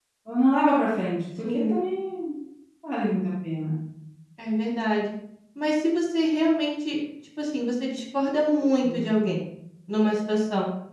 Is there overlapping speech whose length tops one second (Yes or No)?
No